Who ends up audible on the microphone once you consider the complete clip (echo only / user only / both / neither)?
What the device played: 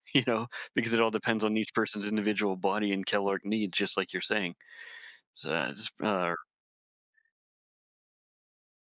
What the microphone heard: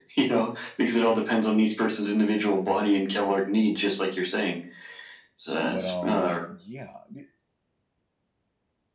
both